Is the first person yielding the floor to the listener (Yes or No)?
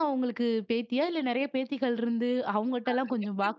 No